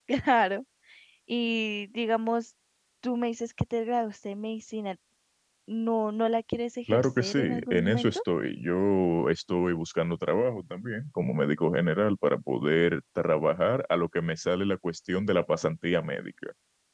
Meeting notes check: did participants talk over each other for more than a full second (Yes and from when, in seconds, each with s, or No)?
Yes, from 6.9 s